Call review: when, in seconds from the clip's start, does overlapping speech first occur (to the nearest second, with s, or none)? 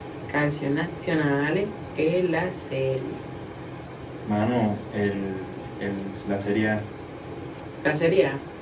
none